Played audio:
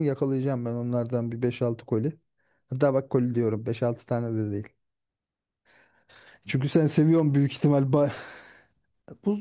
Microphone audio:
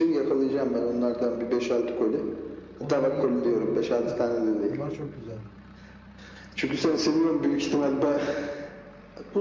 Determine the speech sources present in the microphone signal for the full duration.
both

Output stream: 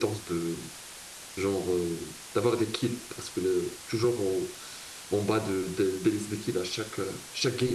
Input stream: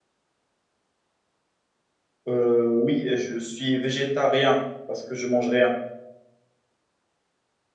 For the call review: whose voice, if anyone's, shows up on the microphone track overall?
user only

